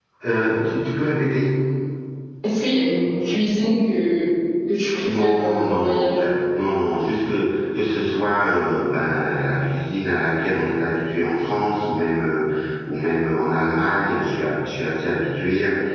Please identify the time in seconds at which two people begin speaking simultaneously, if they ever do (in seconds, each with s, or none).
5.0 s